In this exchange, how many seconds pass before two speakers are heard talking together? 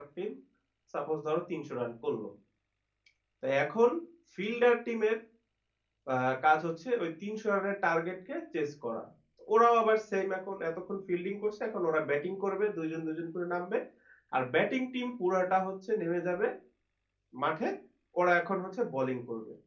none

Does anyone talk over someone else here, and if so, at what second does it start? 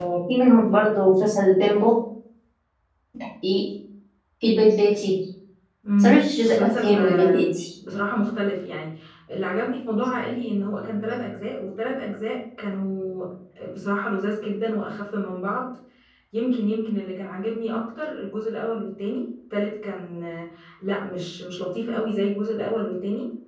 6.0 s

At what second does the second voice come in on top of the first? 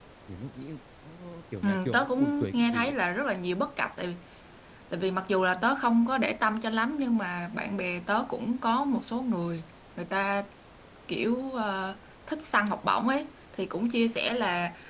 1.6 s

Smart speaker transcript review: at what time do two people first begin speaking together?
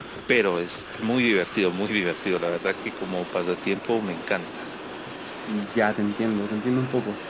none

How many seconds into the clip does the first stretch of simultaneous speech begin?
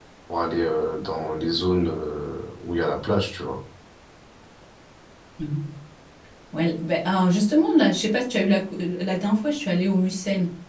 none

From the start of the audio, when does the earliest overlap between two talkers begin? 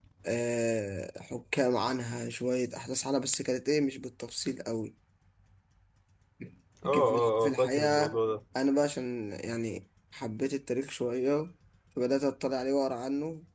6.8 s

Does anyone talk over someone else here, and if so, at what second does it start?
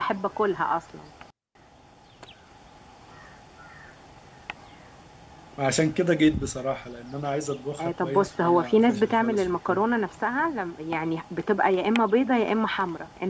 7.8 s

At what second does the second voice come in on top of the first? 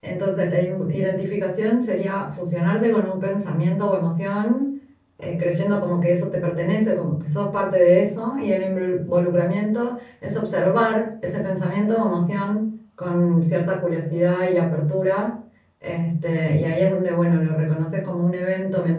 none

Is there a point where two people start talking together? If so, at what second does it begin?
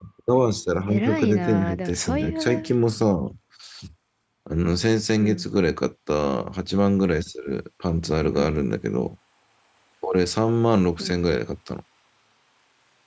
0.9 s

